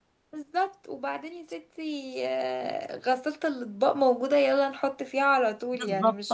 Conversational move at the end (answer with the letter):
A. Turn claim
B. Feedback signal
A